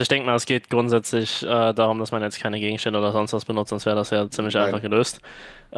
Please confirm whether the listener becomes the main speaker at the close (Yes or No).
No